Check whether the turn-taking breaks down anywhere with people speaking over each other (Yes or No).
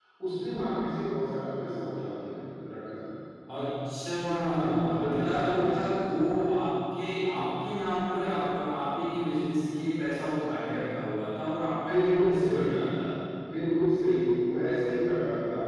Yes